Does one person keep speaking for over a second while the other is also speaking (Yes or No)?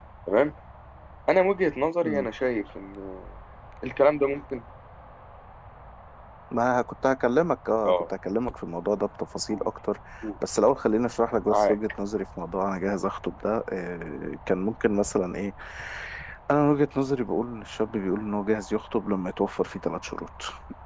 No